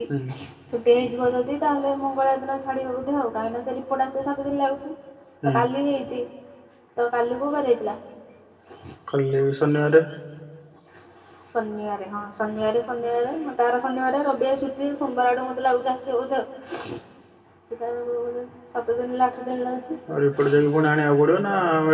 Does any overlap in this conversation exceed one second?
No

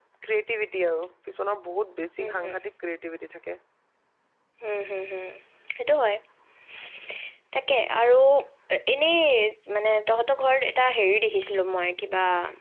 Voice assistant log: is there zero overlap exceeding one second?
Yes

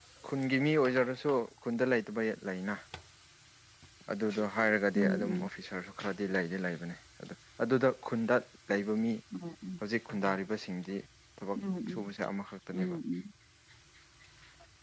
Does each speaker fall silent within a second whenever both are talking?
Yes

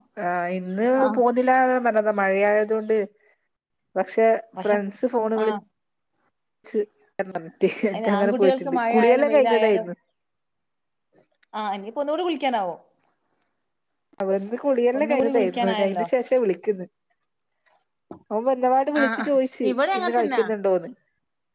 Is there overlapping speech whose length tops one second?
Yes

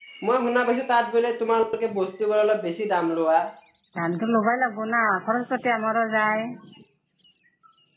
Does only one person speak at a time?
Yes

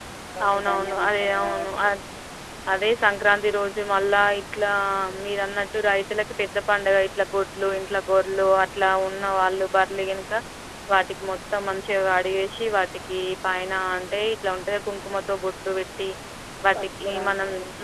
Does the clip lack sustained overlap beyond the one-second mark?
No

